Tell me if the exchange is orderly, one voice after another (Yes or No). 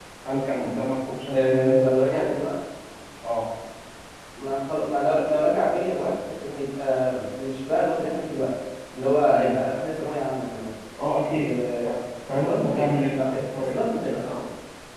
No